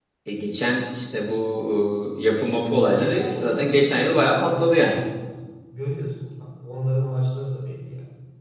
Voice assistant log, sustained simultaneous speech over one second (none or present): present